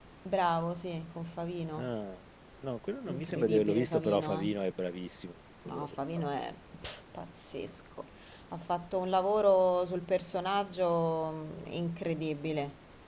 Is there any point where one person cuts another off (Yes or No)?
Yes